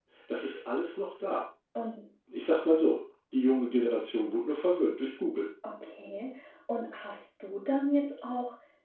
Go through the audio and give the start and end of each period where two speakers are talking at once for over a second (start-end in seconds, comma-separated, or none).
none